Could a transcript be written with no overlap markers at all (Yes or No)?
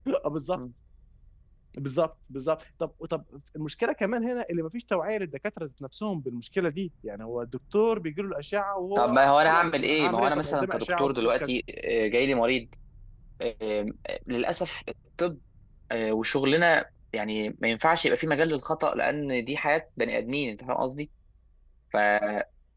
No